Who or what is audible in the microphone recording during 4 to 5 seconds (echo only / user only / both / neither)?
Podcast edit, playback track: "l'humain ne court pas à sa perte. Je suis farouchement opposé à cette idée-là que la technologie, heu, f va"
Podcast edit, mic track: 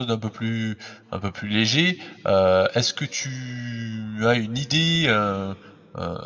user only